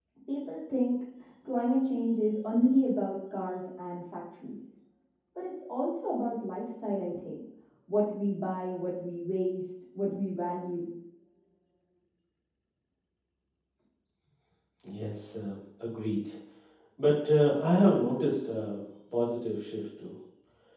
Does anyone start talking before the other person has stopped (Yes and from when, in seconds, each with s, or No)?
No